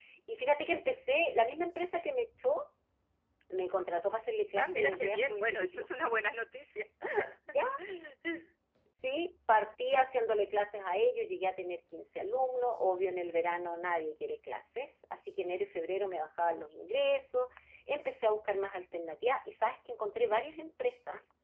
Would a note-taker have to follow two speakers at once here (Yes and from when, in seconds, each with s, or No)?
Yes, from 4.6 s